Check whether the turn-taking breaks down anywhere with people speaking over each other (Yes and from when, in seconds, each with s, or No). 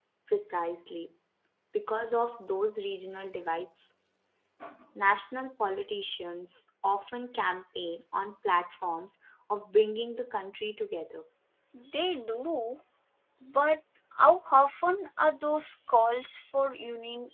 No